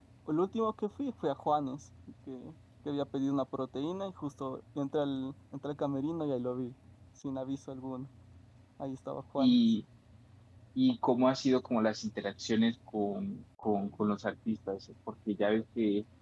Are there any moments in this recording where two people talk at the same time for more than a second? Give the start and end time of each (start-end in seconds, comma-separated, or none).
none